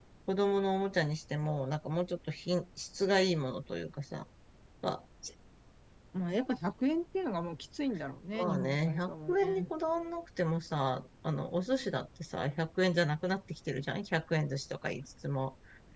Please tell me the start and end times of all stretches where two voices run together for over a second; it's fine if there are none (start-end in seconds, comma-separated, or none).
8.3-9.7